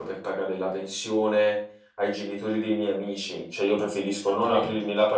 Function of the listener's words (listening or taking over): listening